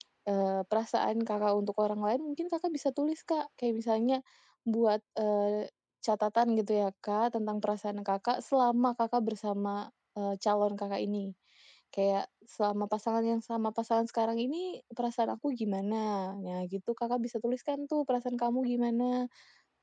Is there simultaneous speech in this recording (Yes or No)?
No